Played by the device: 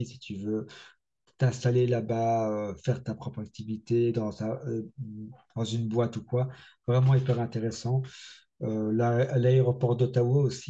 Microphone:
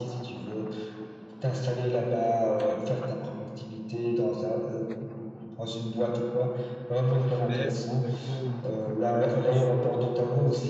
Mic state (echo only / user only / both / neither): both